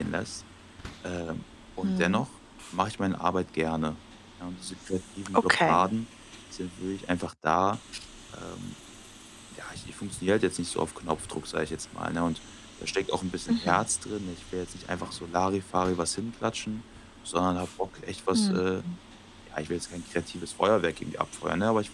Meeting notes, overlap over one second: none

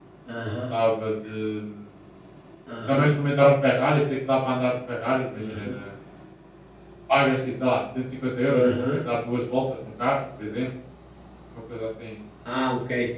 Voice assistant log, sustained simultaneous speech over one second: none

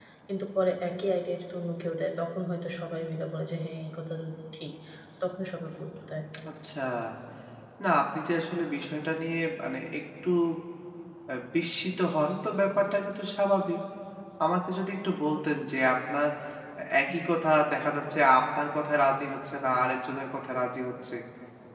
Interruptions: none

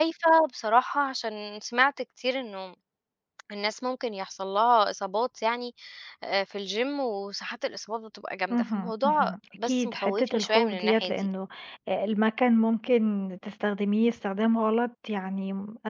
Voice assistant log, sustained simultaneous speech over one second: present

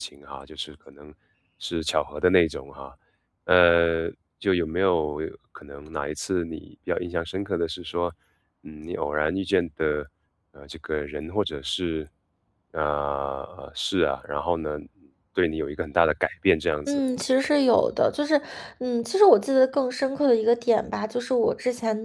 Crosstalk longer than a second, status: none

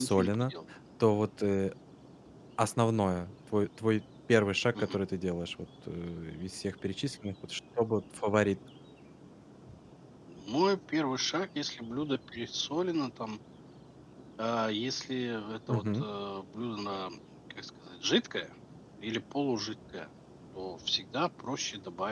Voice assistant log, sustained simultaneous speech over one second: none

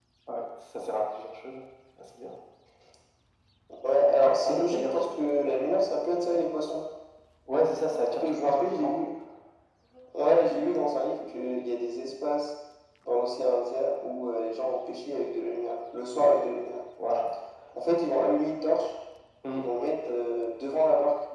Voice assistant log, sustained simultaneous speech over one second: present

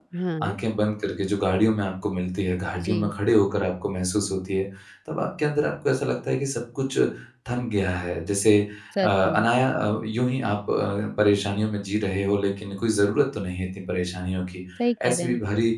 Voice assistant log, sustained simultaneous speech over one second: none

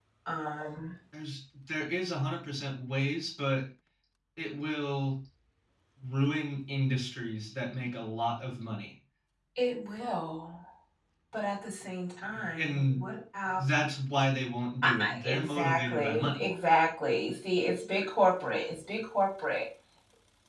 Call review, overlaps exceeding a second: present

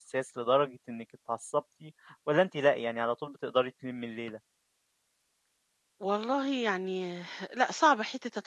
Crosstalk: none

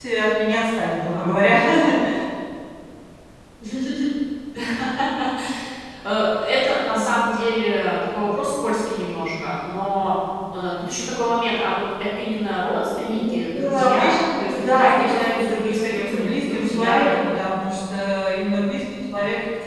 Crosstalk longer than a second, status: present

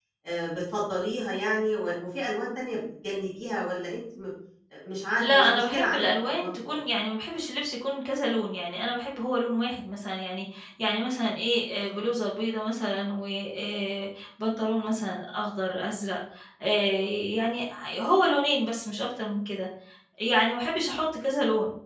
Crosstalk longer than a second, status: present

